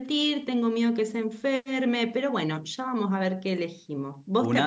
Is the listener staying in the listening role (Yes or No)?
Yes